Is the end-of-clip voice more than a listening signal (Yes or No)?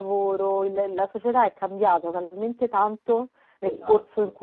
No